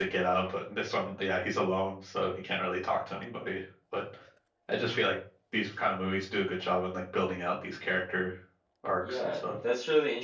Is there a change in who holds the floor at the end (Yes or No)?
Yes